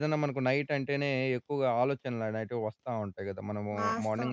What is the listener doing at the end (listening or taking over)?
taking over